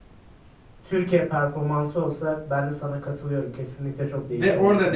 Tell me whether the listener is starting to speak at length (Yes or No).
Yes